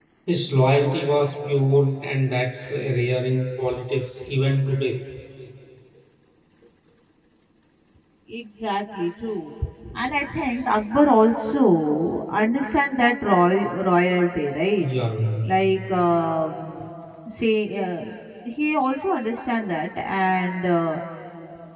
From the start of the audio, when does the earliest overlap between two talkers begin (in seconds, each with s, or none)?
none